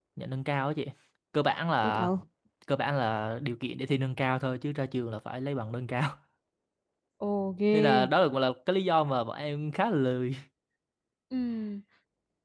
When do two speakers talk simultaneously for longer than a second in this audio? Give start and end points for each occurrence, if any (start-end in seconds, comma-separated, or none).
none